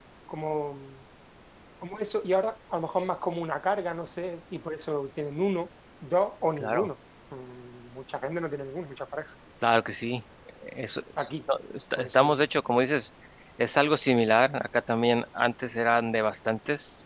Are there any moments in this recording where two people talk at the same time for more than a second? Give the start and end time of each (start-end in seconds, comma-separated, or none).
none